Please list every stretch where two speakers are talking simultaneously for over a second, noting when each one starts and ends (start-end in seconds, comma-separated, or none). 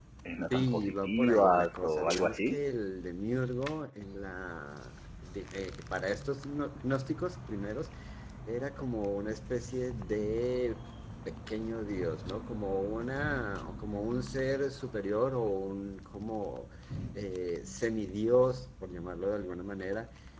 0.5-2.6